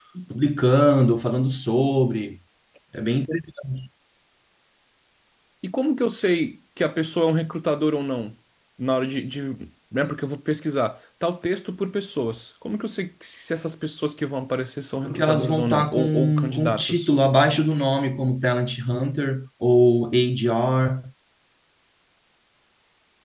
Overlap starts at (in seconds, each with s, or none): 15.0 s